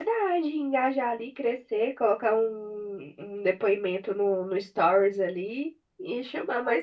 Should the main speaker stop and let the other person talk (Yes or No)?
No